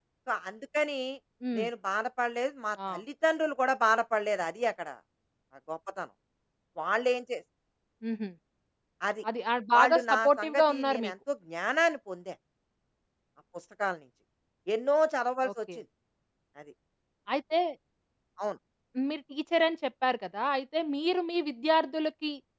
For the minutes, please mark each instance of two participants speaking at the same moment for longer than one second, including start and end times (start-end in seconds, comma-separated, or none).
9.7-11.1